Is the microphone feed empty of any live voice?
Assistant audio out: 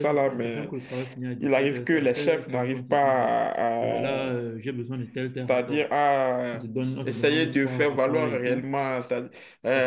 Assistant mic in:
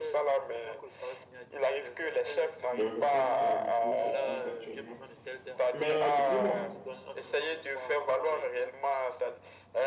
No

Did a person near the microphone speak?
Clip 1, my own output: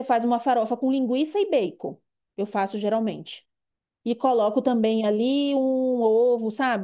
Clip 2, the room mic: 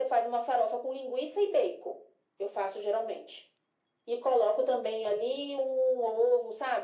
No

